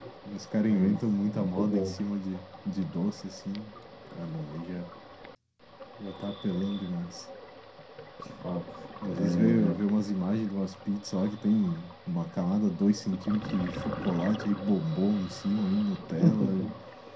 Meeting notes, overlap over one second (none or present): present